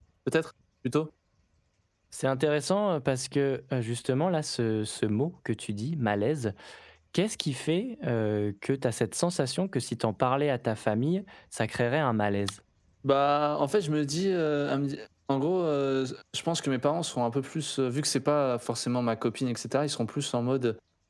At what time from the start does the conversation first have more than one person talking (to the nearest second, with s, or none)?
none